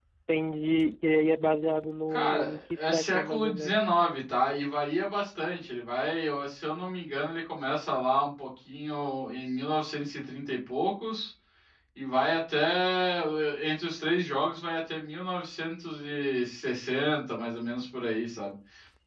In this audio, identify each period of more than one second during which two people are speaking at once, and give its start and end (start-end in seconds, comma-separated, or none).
2.1-3.8